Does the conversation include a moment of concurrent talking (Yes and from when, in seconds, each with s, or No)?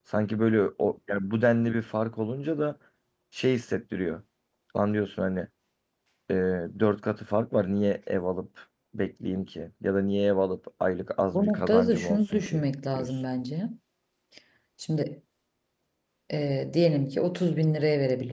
Yes, from 11.3 s